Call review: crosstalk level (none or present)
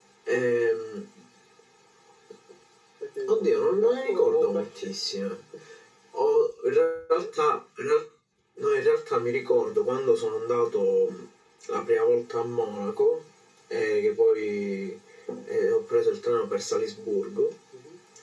present